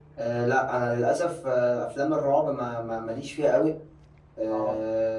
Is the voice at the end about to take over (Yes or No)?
No